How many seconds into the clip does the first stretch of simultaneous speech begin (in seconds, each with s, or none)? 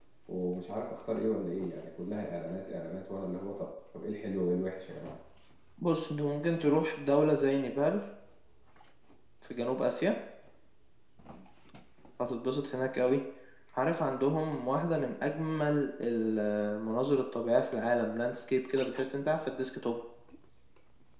none